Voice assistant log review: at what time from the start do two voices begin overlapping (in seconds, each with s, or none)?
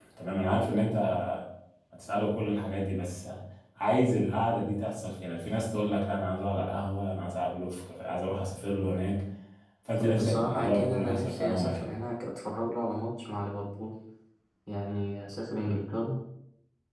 10.1 s